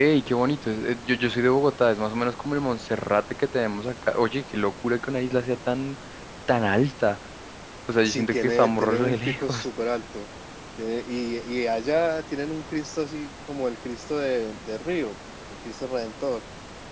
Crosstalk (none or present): present